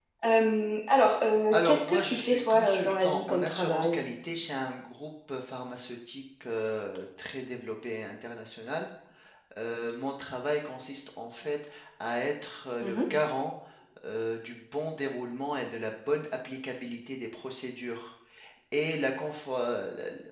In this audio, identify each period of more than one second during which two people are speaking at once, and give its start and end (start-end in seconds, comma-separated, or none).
1.5-4.0